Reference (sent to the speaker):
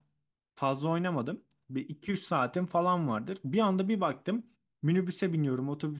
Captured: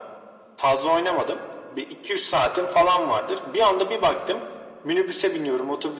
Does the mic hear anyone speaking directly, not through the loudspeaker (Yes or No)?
No